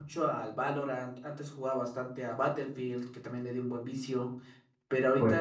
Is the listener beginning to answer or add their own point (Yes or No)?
No